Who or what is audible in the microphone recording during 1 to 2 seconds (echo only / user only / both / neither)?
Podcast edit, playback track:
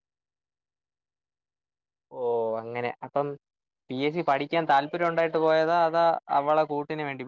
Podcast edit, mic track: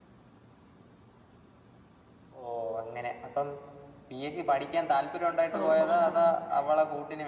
neither